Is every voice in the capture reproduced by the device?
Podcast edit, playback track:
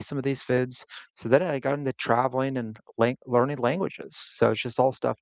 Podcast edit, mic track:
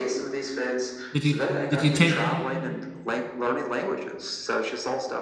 No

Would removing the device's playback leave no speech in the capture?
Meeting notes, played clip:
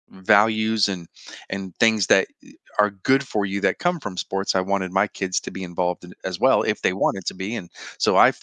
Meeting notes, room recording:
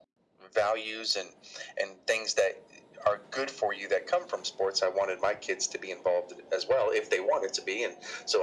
Yes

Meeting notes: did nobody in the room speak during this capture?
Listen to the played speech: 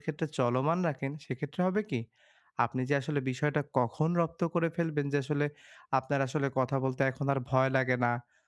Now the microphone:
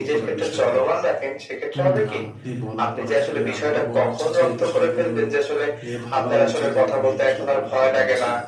No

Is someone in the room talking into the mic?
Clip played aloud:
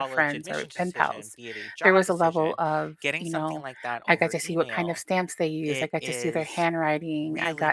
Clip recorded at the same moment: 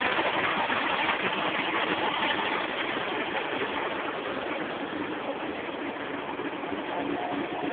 No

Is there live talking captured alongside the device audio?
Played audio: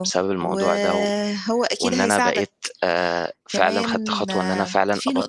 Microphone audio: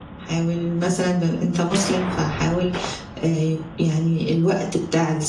Yes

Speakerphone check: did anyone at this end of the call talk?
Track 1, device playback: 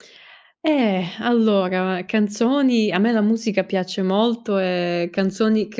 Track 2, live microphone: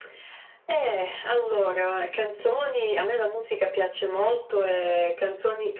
No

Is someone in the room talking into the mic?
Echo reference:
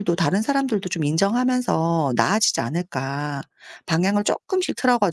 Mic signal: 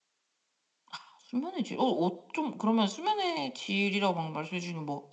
Yes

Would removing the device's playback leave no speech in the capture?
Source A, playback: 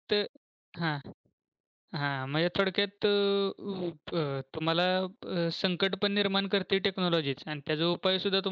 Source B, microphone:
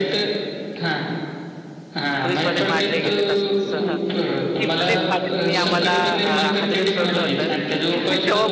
No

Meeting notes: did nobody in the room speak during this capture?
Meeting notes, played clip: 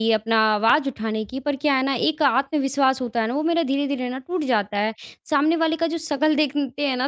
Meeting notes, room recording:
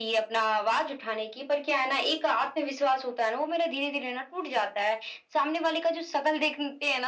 Yes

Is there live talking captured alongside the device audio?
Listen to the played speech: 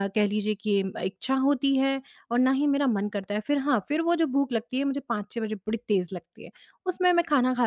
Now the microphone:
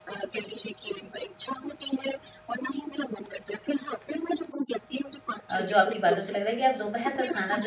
Yes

